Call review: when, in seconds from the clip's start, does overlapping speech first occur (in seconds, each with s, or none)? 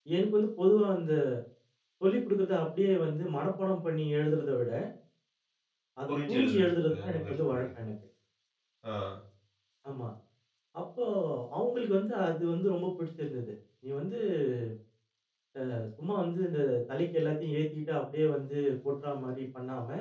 6.1 s